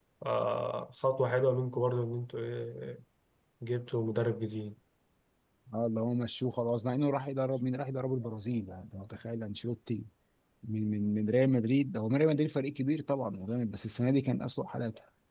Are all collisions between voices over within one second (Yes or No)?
Yes